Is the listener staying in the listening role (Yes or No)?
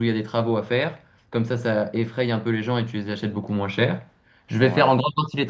Yes